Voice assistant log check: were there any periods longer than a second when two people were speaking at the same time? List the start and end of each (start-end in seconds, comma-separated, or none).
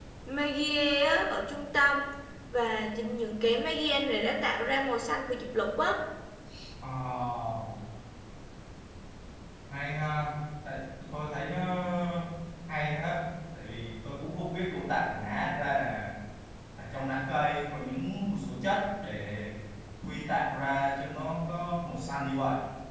none